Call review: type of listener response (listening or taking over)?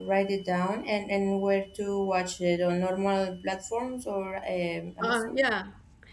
taking over